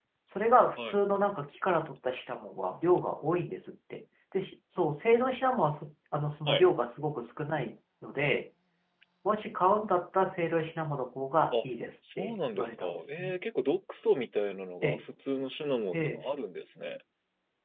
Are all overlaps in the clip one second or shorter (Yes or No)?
No